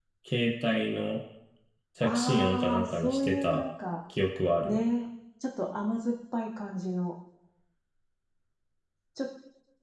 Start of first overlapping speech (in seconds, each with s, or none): 2.0 s